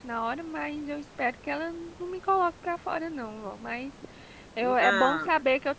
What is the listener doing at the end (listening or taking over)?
listening